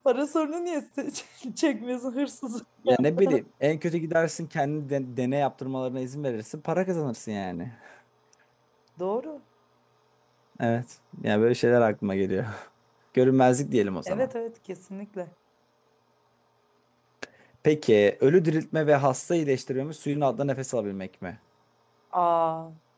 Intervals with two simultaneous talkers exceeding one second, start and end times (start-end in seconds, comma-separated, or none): none